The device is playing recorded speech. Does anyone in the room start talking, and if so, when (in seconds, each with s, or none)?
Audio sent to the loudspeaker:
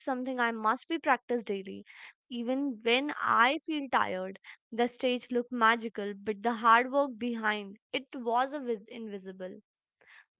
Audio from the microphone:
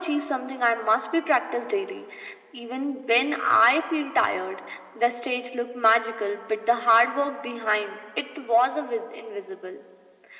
none